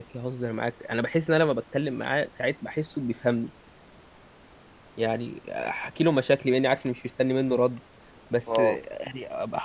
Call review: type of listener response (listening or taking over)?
listening